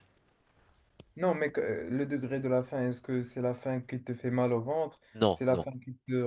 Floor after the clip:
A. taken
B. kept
B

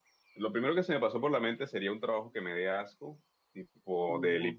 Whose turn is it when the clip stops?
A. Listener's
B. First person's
B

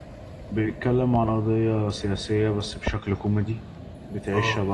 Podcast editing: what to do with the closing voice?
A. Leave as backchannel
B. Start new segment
A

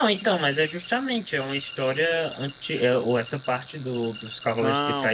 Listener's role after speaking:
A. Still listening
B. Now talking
B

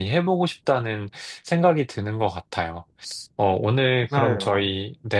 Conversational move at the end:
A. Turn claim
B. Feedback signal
B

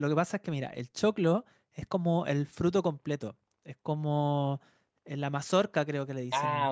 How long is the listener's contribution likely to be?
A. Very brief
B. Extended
B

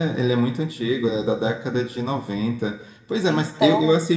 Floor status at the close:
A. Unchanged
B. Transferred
A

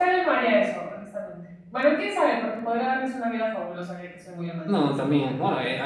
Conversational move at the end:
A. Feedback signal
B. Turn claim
B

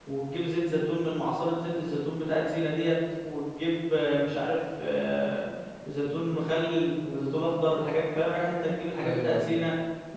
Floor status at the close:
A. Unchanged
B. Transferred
A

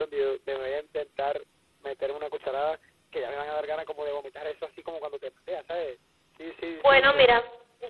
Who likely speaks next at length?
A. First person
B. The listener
B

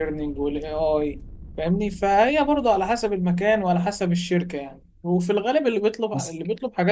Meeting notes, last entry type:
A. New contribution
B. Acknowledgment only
B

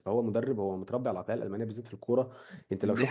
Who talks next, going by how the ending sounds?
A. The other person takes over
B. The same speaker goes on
B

